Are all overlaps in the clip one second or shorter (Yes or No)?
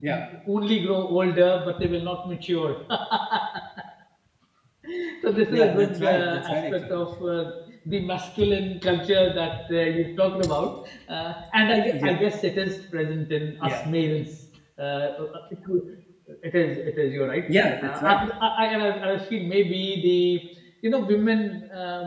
No